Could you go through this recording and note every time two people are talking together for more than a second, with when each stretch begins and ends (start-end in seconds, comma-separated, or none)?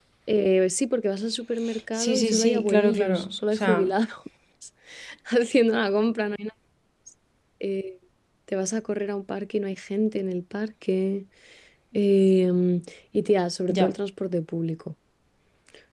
1.9-3.9